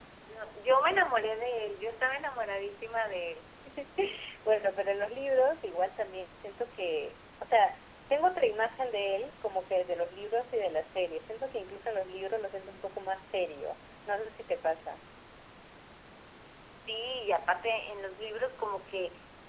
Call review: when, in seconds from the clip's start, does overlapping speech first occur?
none

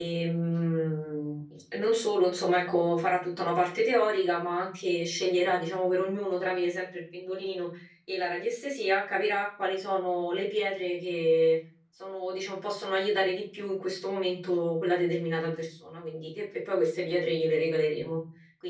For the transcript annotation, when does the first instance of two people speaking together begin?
none

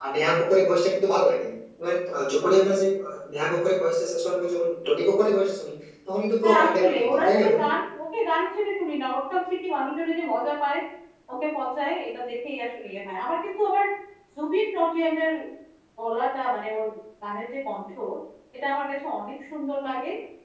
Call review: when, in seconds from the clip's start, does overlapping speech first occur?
6 s

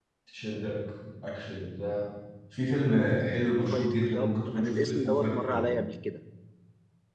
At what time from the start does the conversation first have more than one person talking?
4 s

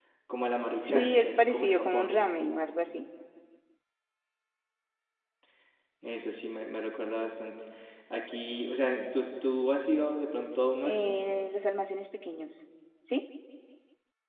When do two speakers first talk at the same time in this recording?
1 s

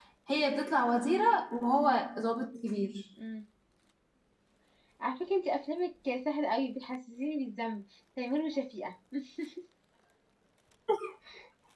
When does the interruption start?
none

